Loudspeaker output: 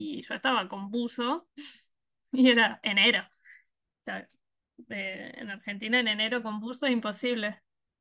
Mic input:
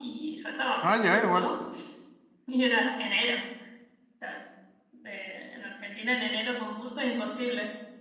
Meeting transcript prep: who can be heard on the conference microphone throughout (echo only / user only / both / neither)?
both